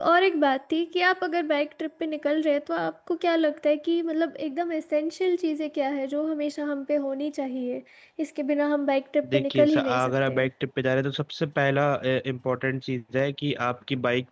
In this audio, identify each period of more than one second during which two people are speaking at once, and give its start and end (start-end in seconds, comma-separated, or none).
9.3-10.5